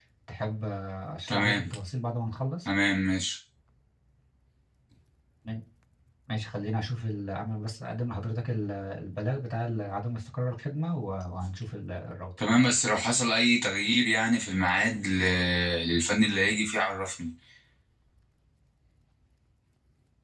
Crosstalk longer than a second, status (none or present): none